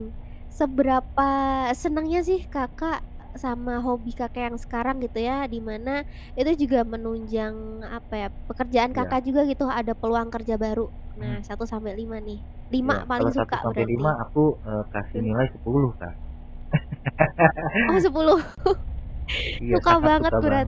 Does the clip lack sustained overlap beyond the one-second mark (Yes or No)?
No